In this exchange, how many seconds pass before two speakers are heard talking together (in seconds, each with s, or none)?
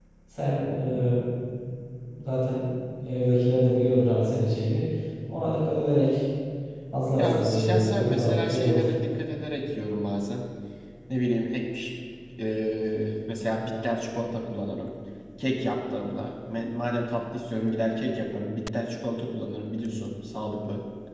7.2 s